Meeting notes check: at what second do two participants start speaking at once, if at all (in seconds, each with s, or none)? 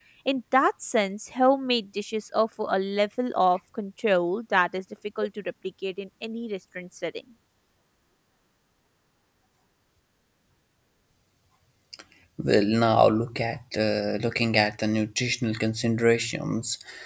none